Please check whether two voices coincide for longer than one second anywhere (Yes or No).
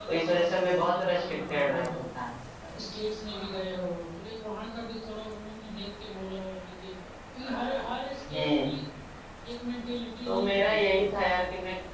Yes